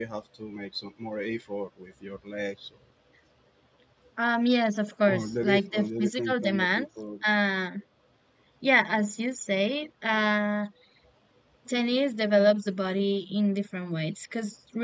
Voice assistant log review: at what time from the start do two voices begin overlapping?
5 s

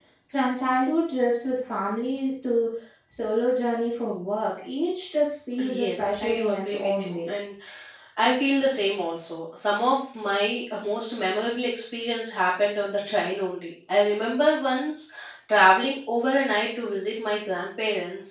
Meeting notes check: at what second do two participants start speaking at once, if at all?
6 s

